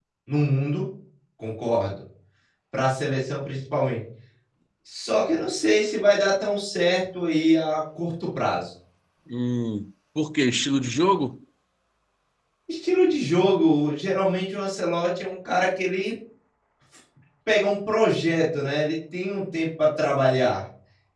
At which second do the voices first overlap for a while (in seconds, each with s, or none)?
none